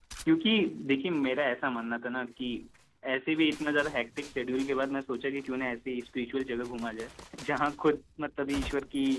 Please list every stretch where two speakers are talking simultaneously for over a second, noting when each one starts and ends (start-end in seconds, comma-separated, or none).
none